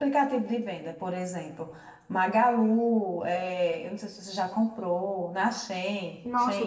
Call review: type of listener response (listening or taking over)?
taking over